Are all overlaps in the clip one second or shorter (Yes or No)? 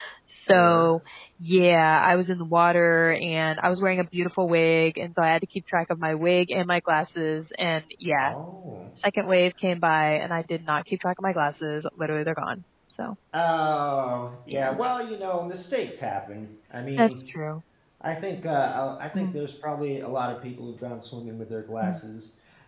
Yes